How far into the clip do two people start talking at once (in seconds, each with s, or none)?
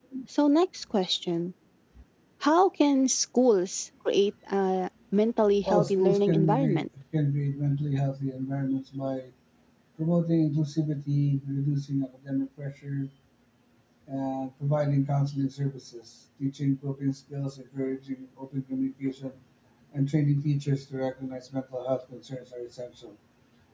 5.4 s